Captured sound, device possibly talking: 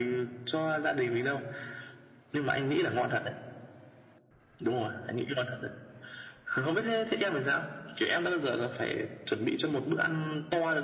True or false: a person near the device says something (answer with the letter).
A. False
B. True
A